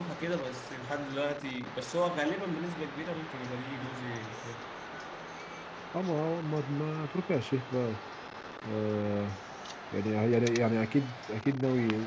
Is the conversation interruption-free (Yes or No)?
Yes